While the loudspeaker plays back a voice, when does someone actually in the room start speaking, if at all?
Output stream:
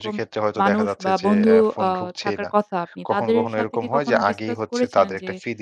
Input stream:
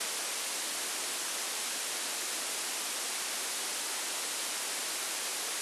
none

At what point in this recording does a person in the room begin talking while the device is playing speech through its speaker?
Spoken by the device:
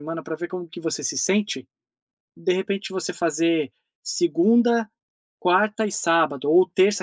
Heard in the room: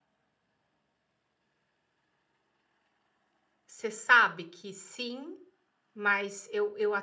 3.7 s

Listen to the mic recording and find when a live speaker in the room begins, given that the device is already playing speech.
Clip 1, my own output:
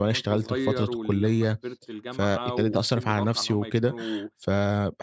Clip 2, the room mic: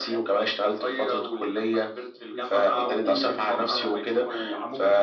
2.2 s

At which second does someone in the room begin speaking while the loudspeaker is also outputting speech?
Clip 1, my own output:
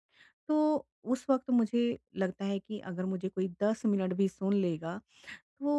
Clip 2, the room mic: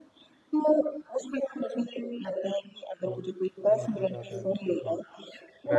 3.1 s

